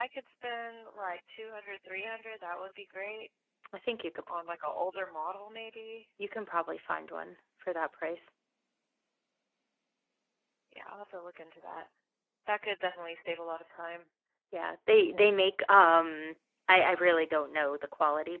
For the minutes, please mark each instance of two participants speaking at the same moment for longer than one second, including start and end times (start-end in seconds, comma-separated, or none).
none